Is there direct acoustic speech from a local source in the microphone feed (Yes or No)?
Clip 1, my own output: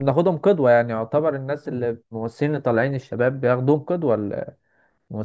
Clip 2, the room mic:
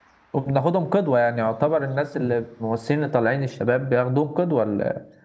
No